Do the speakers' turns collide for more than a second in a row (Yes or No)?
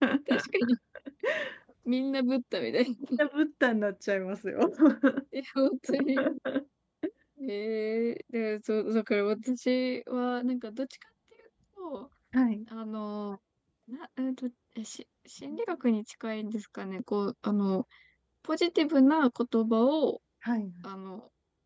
No